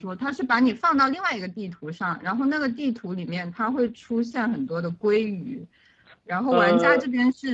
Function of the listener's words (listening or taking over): listening